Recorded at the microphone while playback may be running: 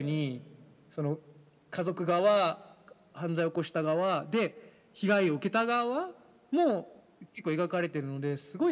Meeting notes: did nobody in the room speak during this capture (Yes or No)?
Yes